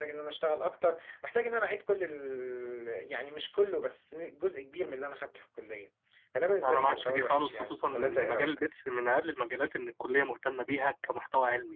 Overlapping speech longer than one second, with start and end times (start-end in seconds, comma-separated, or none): 6.6-8.5